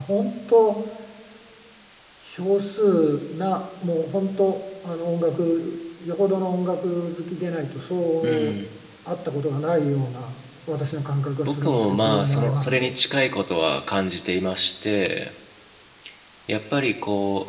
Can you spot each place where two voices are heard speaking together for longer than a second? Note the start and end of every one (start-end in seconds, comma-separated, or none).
11.4-12.9